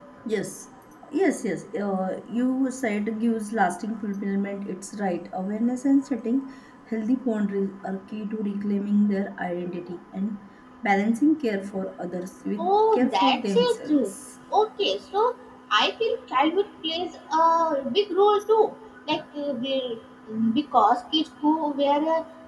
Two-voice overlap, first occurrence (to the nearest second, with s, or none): 13 s